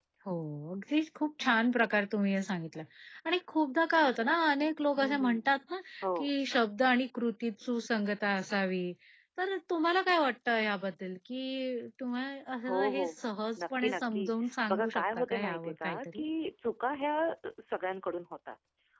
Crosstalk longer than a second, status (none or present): present